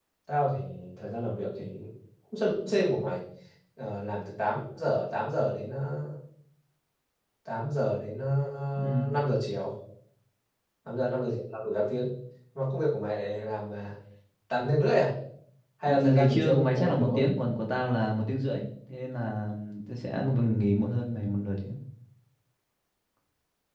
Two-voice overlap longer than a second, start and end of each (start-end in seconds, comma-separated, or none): 15.8-17.3